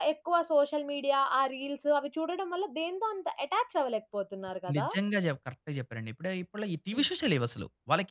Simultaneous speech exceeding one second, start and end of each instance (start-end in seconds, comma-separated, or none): none